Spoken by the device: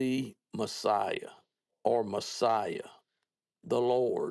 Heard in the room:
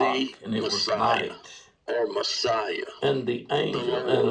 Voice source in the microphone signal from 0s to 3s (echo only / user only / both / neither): both